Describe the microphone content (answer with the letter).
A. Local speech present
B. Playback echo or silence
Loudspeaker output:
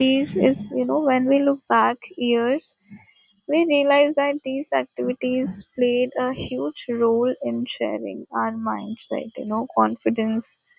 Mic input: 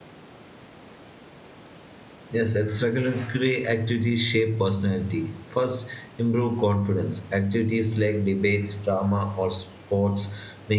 A